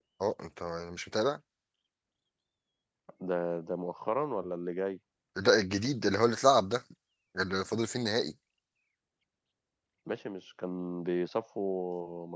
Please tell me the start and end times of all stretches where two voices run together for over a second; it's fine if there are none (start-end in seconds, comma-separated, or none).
none